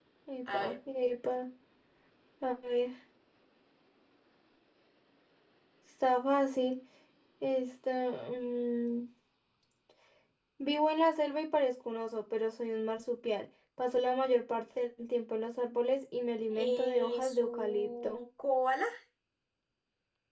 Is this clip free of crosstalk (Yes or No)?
No